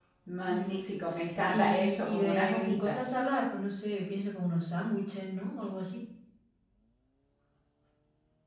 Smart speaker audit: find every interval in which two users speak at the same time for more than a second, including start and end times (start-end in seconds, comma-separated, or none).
1.5-3.1